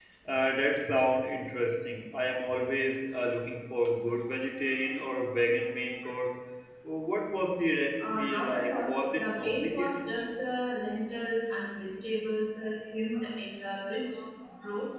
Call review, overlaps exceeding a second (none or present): present